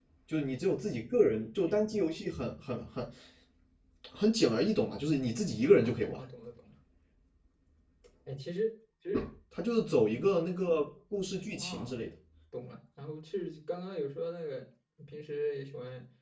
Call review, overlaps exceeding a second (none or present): none